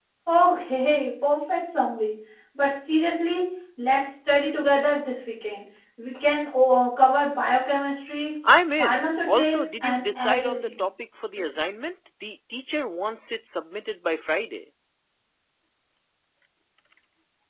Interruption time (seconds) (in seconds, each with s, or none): 8.8 s